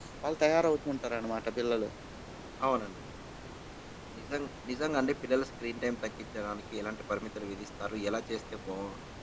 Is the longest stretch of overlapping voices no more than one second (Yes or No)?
Yes